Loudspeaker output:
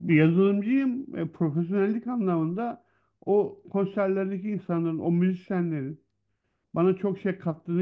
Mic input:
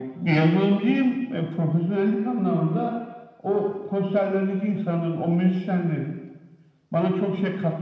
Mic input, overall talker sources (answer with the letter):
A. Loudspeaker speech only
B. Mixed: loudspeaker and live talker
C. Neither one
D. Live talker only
A